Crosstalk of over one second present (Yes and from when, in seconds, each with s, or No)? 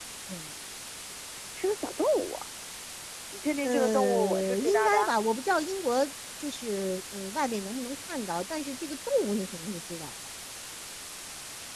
Yes, from 3.6 s